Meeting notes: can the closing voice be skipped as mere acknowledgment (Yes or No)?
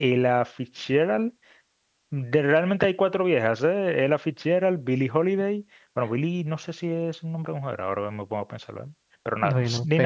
Yes